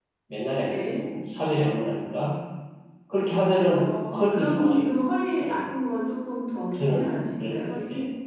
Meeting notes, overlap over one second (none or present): present